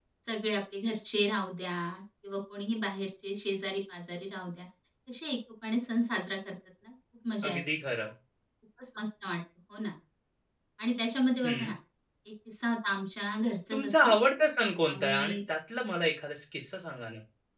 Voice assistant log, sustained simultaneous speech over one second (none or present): none